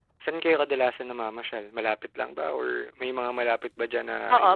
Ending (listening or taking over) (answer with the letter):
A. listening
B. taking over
B